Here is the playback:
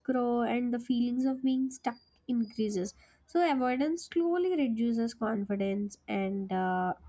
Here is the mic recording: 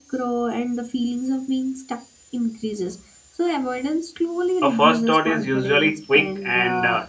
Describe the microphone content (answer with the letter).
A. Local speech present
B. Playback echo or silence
A